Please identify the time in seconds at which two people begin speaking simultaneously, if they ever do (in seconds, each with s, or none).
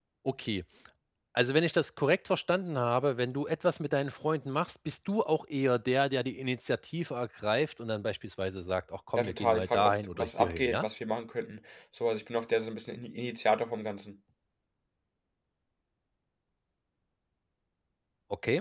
9.2 s